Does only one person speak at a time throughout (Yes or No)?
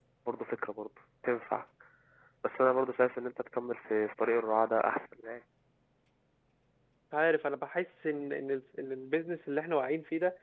Yes